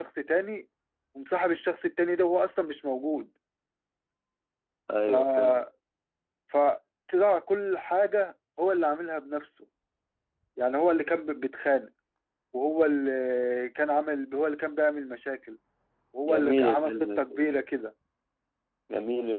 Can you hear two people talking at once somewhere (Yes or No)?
Yes